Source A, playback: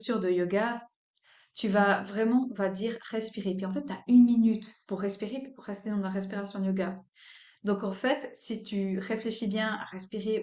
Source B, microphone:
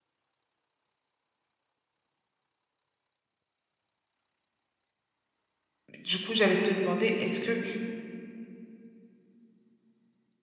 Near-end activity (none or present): present